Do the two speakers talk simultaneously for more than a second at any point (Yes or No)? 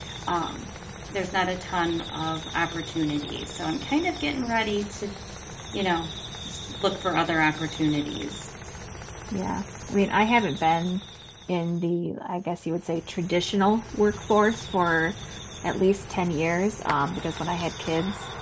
No